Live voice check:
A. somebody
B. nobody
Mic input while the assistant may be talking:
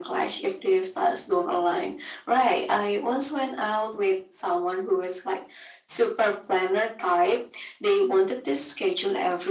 B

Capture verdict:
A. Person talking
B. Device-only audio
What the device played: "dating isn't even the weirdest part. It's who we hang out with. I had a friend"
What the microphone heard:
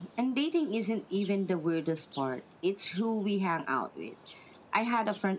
B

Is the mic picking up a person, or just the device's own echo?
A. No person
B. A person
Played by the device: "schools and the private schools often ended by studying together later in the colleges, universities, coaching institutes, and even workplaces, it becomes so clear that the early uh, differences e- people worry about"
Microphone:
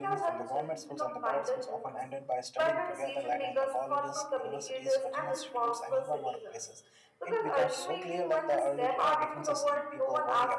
B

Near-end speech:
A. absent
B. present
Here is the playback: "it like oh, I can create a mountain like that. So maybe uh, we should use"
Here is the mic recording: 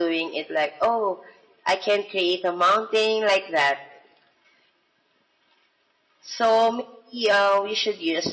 A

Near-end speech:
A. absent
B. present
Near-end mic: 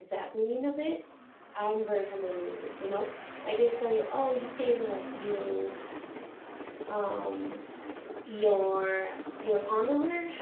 B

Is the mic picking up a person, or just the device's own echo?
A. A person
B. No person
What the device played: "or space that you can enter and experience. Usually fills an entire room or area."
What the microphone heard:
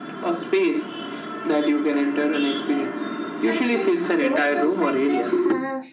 A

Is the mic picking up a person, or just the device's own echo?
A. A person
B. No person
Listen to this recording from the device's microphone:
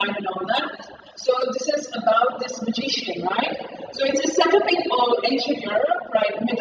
B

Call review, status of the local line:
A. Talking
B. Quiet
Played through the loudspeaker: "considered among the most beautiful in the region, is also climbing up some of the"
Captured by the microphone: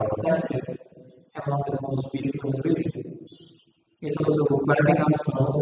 B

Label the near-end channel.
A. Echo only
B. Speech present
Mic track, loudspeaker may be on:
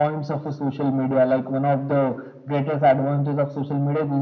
A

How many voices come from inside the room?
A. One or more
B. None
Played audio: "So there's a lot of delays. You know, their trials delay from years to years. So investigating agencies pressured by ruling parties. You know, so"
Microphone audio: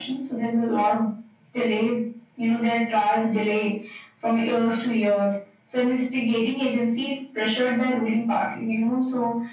B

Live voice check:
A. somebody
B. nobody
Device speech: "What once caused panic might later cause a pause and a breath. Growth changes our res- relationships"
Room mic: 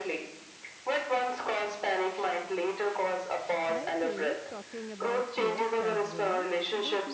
A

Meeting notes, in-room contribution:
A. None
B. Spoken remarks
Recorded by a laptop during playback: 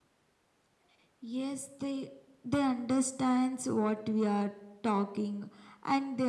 A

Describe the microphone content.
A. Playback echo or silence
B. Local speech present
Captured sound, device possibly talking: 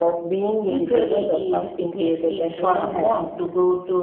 A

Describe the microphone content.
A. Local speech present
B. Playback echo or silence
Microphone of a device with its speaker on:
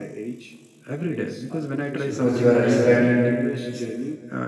A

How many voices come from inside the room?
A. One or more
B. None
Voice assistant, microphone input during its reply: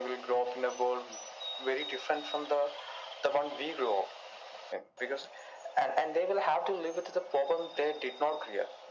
B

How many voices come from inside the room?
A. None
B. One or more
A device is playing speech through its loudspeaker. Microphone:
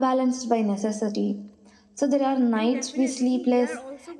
B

